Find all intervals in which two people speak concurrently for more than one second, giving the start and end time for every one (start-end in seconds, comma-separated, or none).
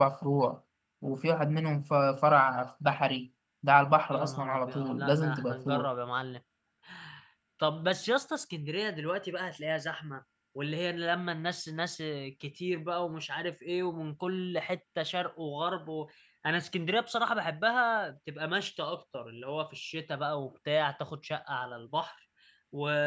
4.1-5.9